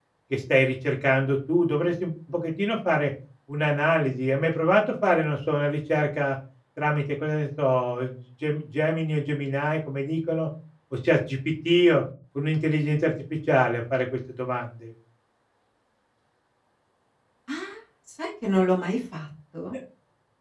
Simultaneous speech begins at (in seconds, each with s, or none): none